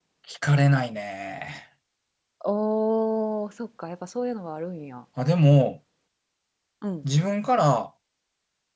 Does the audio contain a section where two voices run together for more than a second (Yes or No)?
No